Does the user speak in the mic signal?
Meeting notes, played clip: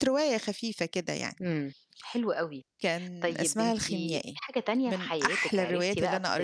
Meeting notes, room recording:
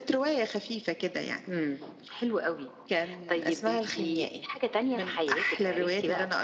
No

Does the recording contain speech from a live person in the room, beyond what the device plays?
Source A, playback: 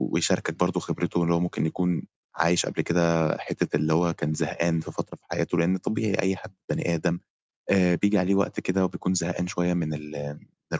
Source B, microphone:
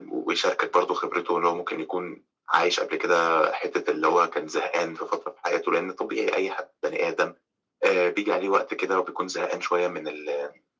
No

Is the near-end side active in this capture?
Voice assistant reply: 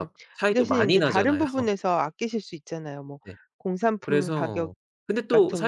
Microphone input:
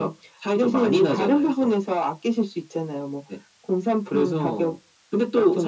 No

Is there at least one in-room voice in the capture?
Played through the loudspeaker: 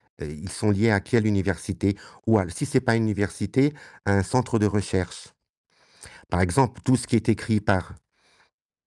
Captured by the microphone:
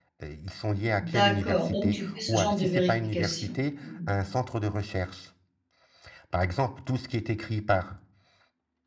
Yes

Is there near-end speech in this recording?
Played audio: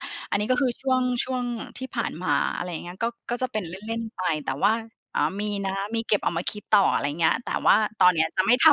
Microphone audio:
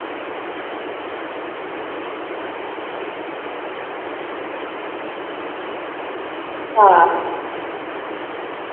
Yes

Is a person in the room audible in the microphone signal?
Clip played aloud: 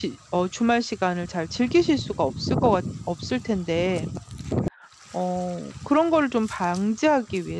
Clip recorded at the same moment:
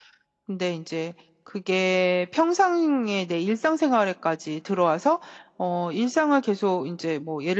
Yes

